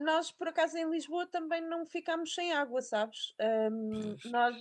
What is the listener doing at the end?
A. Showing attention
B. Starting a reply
A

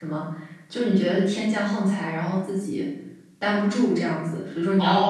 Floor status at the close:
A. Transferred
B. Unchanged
A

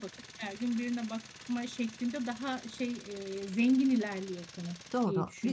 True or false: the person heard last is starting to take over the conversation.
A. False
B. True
B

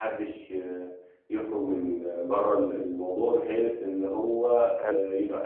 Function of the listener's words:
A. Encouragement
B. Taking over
A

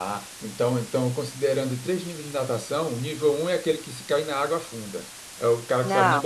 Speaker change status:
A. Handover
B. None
B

